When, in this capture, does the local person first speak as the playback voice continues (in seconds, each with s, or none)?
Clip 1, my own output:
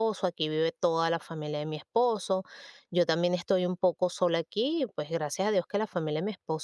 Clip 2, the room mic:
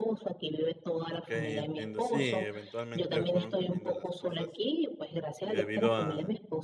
1.1 s